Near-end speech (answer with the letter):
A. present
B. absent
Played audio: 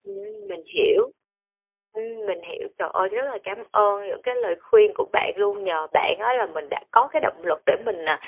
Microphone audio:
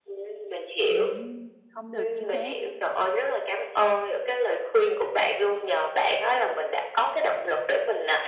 A